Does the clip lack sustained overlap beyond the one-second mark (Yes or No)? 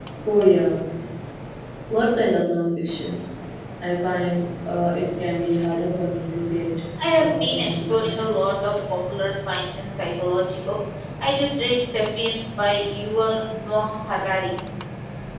No